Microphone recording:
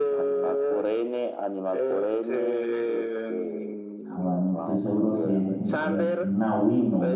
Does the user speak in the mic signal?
Yes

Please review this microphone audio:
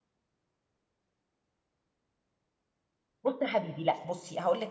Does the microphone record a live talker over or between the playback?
Yes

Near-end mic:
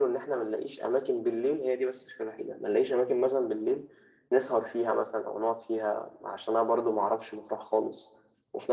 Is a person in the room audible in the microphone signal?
No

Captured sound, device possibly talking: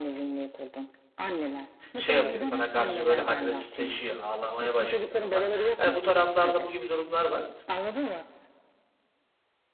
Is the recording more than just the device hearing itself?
Yes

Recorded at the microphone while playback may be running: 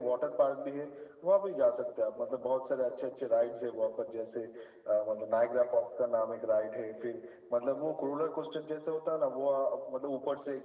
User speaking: No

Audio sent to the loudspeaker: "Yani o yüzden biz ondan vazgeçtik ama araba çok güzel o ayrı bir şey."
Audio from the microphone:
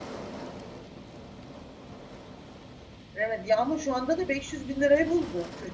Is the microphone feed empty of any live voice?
No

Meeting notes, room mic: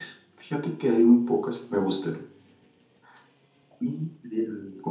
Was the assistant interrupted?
Yes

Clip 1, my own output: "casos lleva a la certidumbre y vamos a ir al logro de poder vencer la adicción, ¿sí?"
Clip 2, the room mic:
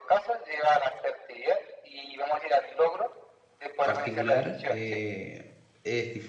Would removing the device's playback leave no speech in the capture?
No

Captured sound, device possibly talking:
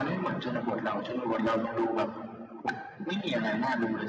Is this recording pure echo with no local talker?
Yes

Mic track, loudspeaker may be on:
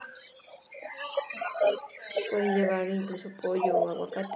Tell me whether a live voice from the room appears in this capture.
Yes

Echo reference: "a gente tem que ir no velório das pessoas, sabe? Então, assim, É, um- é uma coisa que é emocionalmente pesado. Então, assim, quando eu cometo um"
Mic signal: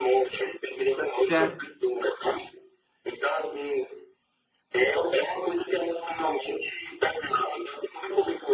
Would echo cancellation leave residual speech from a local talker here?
Yes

